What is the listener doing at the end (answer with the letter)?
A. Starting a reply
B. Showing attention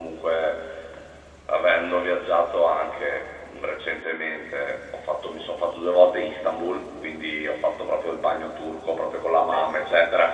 B